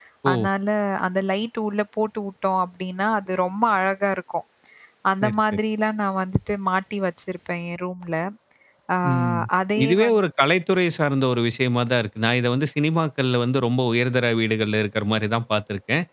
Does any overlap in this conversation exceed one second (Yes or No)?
No